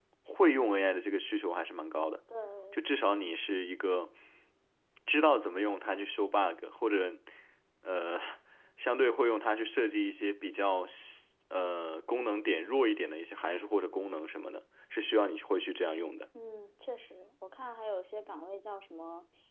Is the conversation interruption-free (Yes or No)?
Yes